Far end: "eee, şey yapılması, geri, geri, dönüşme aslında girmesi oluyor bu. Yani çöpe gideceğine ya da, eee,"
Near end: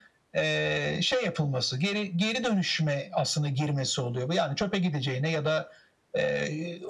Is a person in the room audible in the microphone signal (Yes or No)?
No